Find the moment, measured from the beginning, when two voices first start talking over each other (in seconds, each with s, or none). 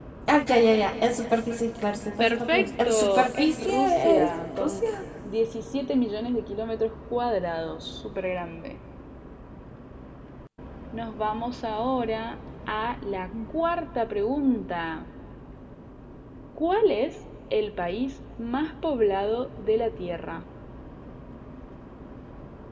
2.2 s